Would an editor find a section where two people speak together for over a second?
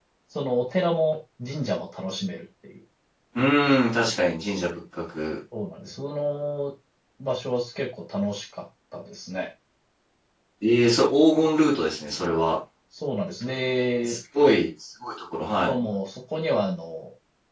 No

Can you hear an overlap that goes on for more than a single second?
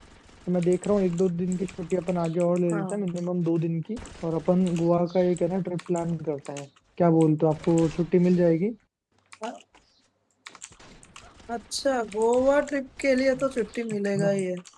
No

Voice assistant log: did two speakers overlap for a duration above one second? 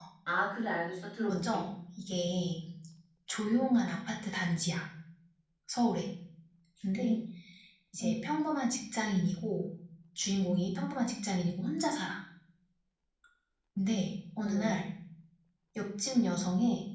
No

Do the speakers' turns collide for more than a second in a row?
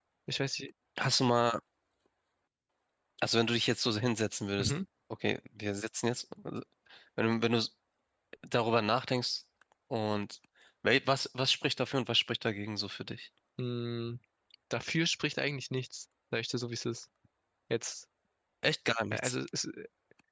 No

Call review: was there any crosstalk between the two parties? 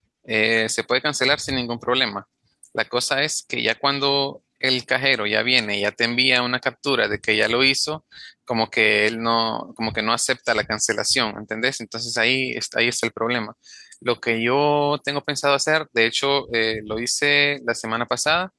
No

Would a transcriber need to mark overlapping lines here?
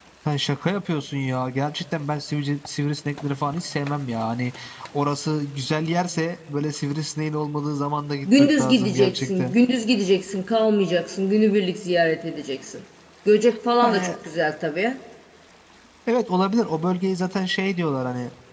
Yes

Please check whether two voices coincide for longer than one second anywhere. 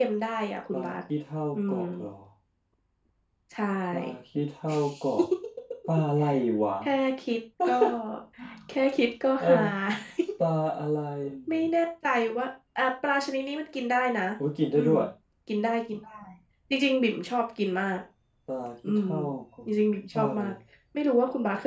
No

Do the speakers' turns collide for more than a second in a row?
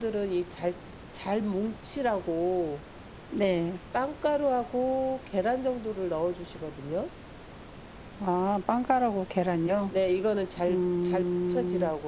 Yes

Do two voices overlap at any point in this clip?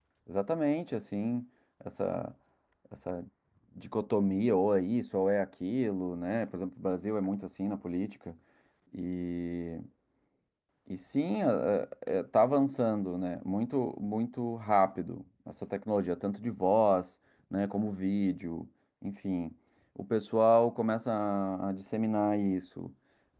No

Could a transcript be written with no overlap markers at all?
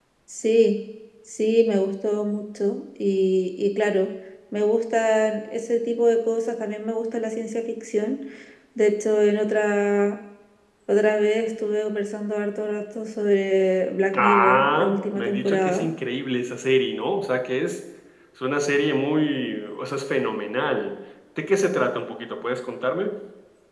No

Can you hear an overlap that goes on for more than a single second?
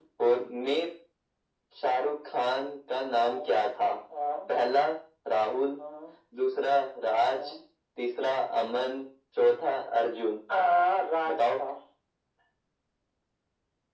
No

